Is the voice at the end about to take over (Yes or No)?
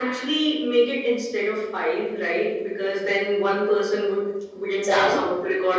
No